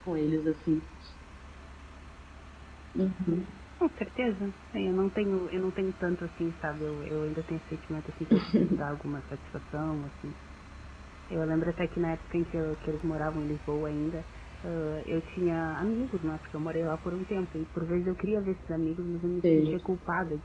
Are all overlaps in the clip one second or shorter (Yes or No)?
Yes